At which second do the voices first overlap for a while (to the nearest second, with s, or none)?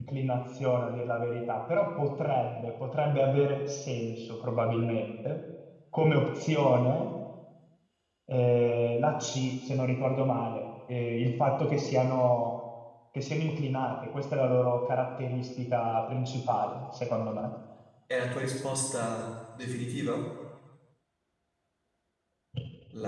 none